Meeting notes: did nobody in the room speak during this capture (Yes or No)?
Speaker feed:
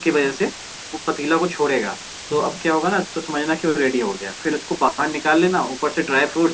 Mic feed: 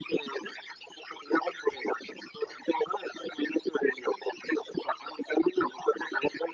Yes